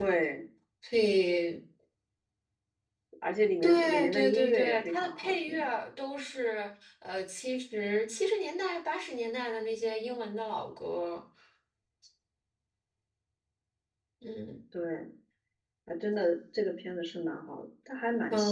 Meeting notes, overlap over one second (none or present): present